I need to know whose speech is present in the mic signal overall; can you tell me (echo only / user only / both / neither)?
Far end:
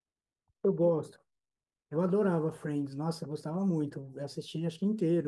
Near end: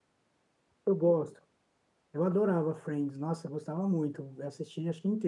echo only